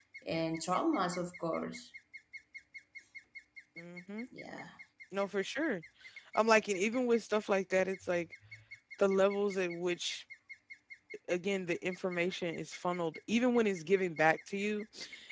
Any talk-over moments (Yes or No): No